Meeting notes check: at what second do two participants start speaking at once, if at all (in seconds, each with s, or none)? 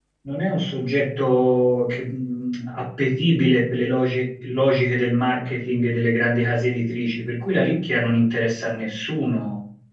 none